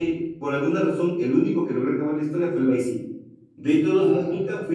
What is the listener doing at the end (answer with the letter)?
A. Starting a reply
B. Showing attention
B